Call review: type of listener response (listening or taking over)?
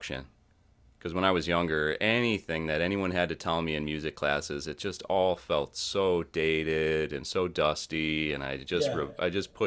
listening